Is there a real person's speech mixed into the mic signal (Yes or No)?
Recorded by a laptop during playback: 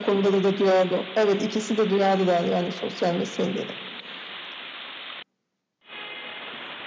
No